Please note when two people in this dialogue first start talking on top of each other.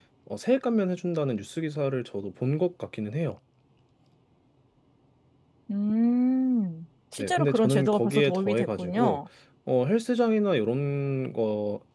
7.2 s

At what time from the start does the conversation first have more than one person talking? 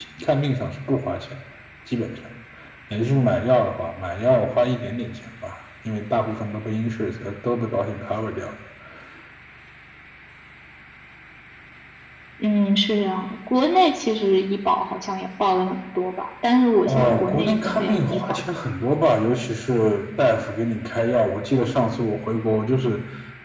16.9 s

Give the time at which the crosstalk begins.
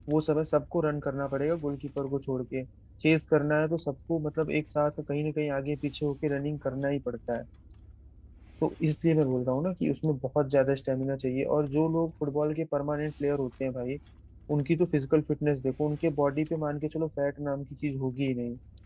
none

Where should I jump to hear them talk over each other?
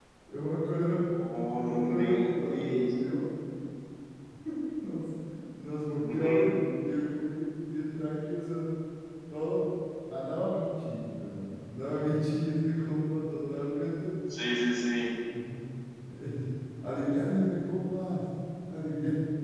1.6 s

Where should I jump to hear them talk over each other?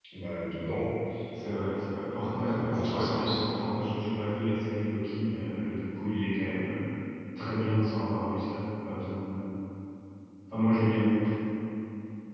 2.3 s

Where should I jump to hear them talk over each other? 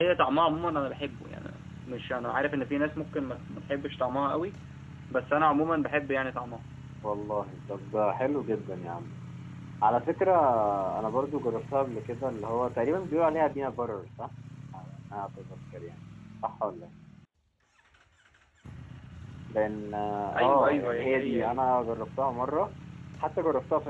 20.4 s

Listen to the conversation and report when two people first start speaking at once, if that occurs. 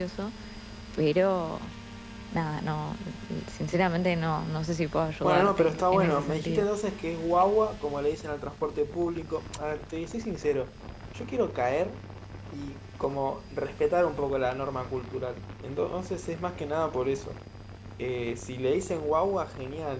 5.2 s

